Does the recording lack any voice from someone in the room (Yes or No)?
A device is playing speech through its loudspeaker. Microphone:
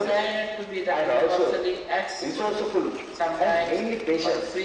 Yes